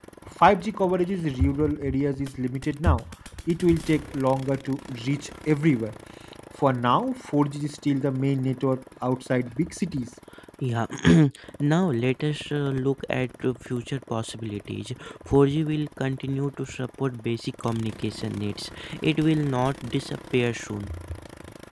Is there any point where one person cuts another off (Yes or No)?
No